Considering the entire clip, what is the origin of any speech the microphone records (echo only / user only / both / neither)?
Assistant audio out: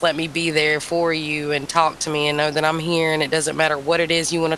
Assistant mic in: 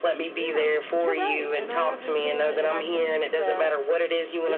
both